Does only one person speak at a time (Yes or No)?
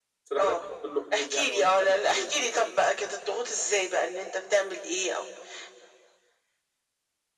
No